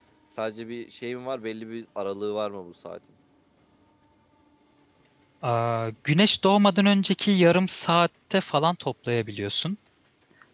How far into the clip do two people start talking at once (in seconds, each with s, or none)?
none